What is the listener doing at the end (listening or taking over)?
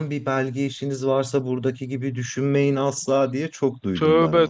taking over